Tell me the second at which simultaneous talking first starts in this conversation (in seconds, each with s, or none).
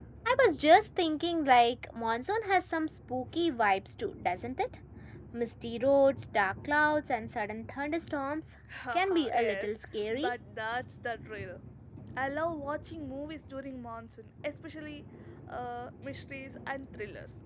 8.9 s